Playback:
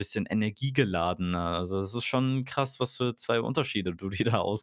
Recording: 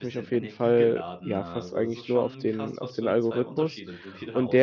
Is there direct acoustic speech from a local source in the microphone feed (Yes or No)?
Yes